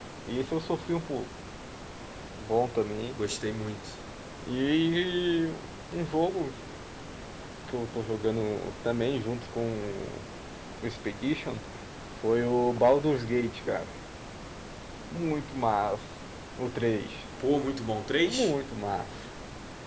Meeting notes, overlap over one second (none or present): none